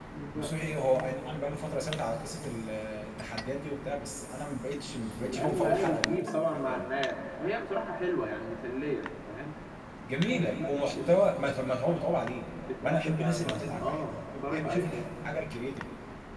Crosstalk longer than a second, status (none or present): present